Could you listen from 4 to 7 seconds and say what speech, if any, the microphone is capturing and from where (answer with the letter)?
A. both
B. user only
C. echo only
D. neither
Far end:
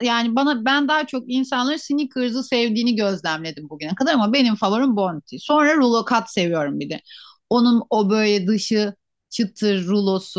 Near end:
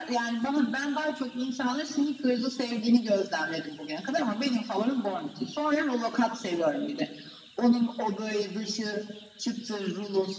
C